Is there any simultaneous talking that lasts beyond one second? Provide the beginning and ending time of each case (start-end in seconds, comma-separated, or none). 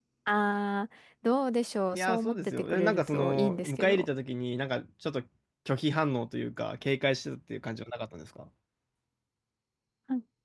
1.9-4.0